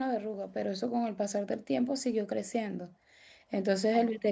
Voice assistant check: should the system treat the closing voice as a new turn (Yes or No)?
No